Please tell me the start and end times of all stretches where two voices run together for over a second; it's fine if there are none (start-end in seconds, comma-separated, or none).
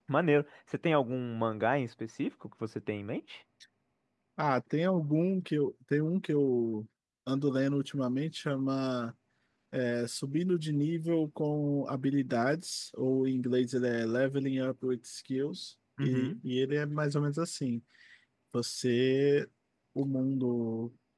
none